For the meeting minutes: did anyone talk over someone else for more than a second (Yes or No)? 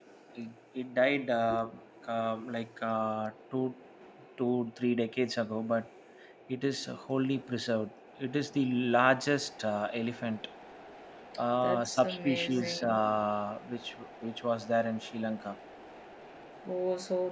Yes